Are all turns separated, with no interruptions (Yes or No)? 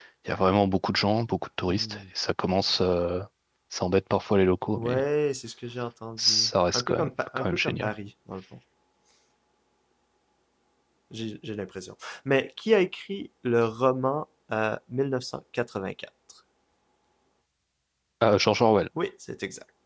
No